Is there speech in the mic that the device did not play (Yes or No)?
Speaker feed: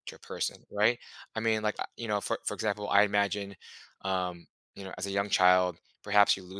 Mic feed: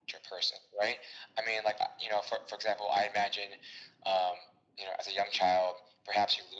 No